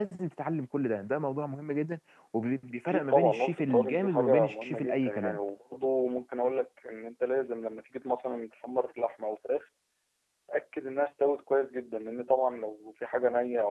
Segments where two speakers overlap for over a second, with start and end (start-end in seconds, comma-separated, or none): 2.9-5.4